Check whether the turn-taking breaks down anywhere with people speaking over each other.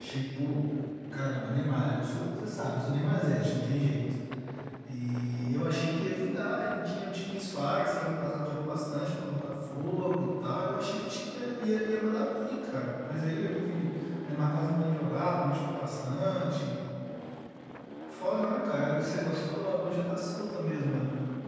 No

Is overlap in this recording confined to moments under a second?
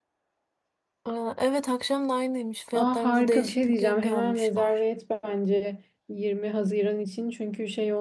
No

